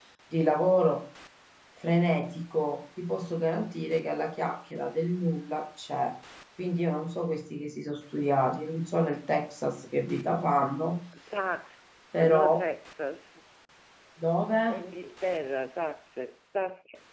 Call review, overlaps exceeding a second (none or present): none